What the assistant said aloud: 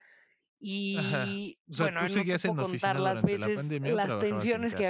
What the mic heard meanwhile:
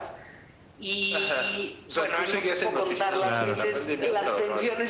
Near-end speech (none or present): present